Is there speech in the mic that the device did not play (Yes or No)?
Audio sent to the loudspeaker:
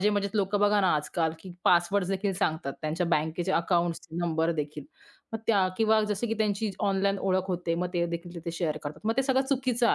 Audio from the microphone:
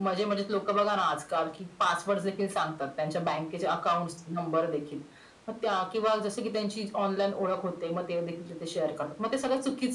No